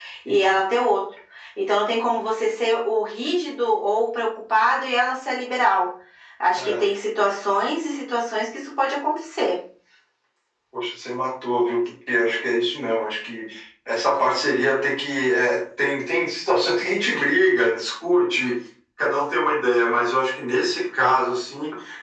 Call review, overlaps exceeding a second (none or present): none